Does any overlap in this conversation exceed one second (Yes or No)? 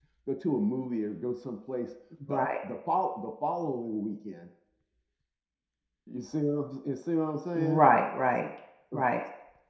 No